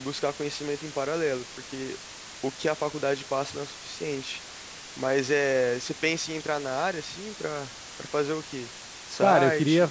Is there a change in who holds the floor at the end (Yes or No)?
Yes